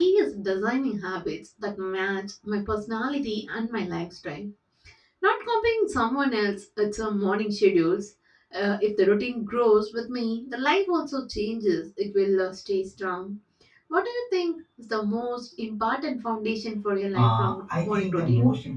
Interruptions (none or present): present